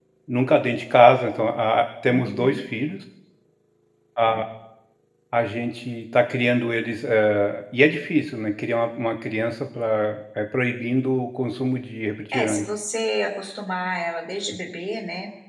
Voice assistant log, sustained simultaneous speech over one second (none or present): none